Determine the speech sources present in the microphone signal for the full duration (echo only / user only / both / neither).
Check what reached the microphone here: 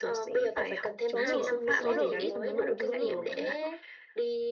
both